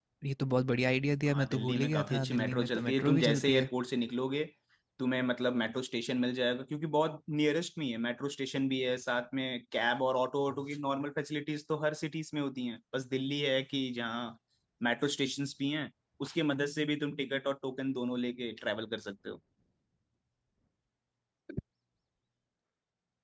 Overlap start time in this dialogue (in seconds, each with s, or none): 1.3 s